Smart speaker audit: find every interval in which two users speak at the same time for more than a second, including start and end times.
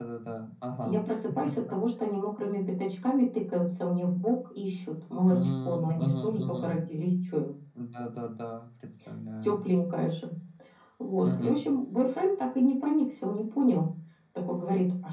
5.3-6.7

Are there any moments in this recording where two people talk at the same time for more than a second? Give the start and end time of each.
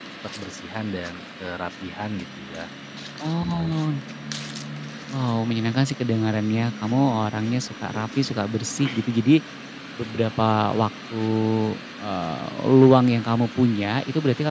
none

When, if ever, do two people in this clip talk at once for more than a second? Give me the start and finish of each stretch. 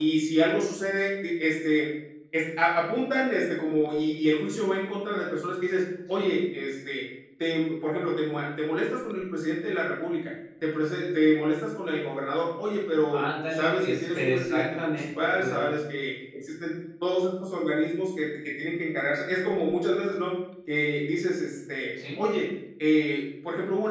13.1-15.7

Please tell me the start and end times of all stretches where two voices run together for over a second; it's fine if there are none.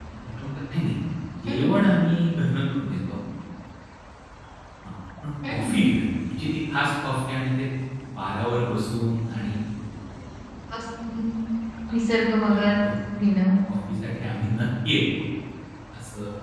none

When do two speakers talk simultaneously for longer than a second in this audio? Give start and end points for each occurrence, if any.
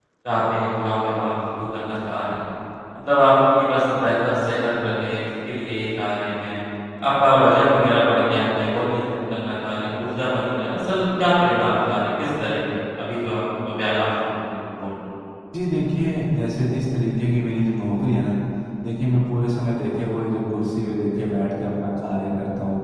none

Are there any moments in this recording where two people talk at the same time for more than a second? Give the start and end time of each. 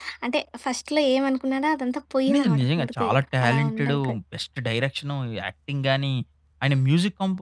2.3-4.0

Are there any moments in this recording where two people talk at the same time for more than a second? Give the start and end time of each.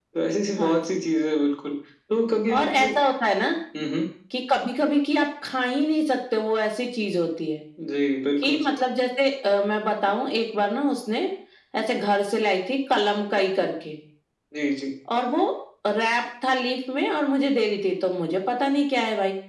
none

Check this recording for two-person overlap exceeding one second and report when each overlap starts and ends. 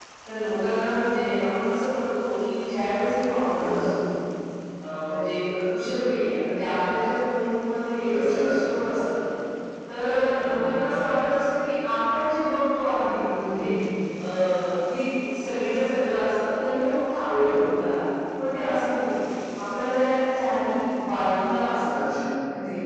none

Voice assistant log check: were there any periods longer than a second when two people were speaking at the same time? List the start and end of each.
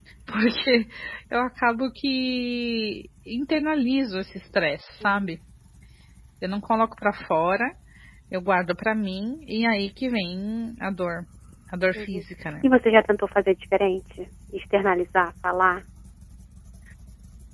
none

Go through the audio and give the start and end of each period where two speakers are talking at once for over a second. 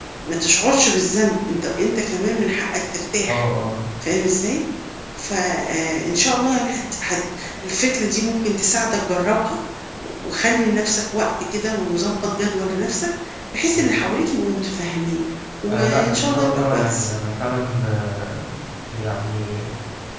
15.7-17.1

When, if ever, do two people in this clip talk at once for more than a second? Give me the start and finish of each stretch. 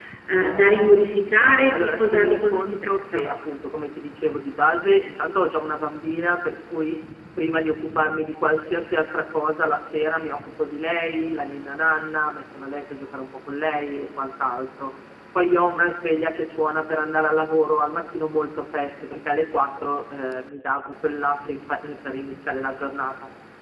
1.7-3.2

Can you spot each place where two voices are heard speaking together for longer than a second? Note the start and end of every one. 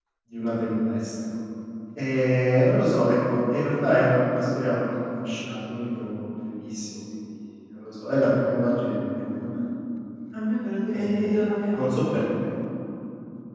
11.0-12.2

